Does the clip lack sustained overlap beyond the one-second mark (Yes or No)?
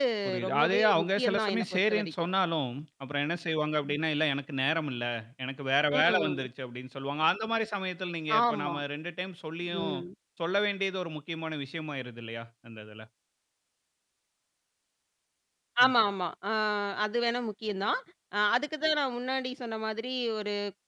No